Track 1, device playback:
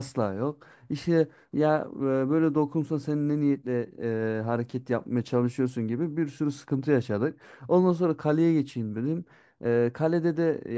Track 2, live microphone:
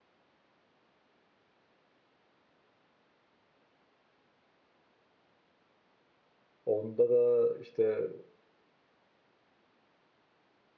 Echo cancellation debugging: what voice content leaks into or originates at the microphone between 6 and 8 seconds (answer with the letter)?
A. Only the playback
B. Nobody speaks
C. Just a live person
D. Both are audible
C